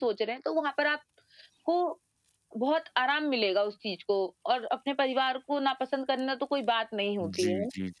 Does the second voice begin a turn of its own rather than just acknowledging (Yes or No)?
Yes